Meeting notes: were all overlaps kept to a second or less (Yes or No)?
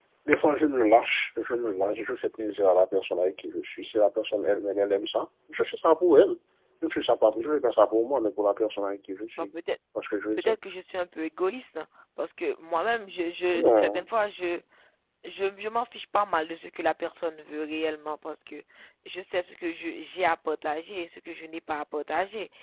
Yes